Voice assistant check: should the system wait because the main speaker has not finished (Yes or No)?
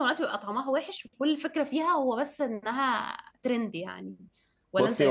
No